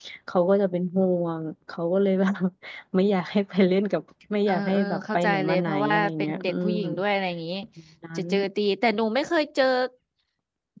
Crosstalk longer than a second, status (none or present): present